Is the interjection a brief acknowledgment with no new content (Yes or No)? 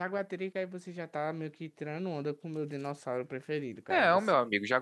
No